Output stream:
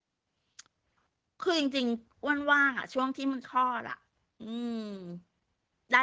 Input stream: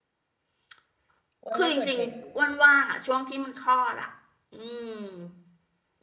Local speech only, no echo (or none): อ้วนว่าชวนใครดี